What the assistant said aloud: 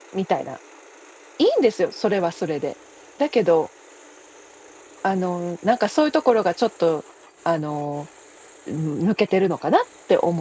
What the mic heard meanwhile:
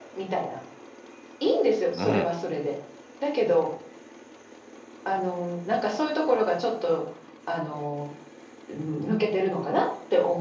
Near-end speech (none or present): present